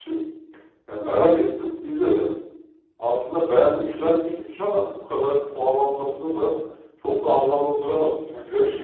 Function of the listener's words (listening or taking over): taking over